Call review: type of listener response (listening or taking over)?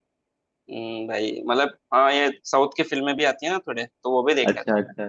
taking over